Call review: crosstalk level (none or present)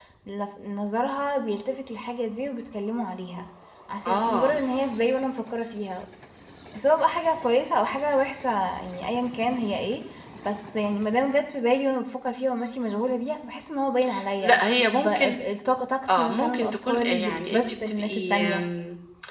present